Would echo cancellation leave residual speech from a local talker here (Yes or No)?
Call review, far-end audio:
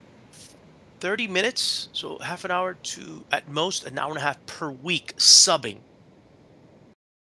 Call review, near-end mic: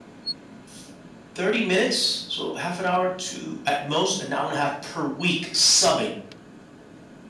No